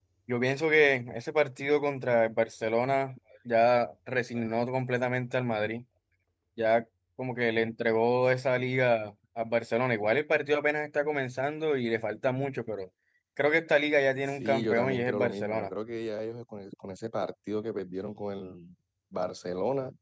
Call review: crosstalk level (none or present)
present